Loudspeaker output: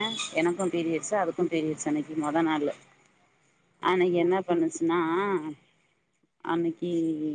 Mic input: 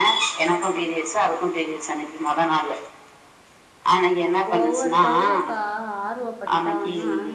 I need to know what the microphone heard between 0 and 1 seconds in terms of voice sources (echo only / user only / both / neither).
echo only